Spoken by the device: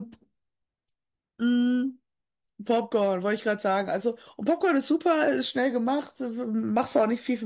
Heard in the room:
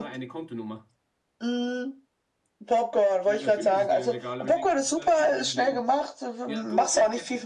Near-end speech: present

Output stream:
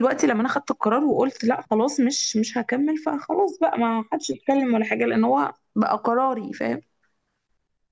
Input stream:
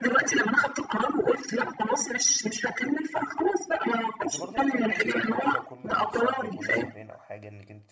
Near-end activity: present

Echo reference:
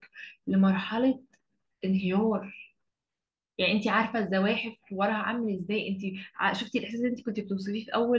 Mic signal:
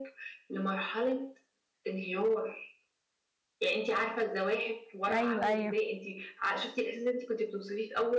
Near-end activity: present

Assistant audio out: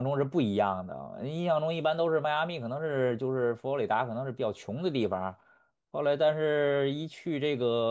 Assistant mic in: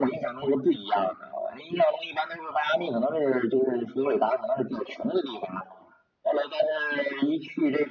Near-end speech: none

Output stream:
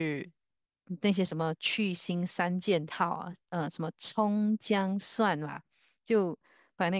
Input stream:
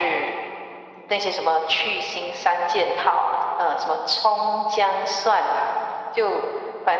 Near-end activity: none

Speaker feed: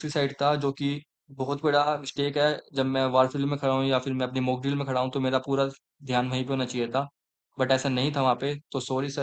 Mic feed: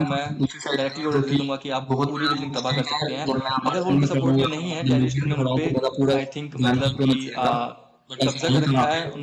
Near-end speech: present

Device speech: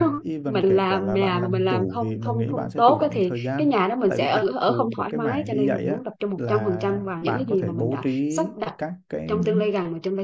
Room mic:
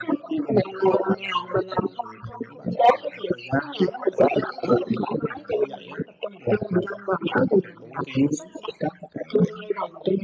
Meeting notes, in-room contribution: none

